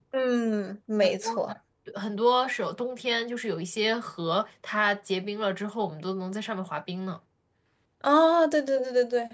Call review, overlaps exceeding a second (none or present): none